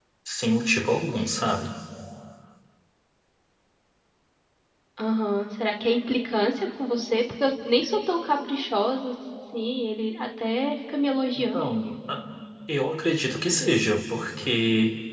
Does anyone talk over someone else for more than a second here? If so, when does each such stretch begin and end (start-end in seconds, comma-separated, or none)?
none